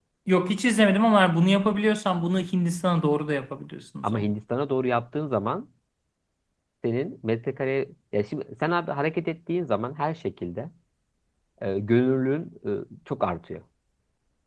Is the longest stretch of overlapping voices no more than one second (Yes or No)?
Yes